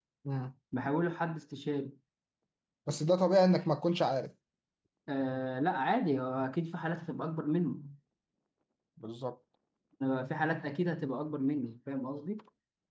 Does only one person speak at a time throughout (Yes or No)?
Yes